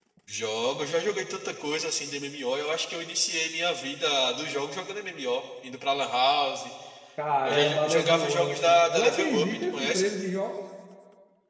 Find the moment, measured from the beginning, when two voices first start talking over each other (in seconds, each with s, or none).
7.4 s